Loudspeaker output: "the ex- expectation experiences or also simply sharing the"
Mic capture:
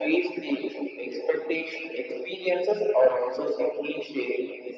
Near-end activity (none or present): none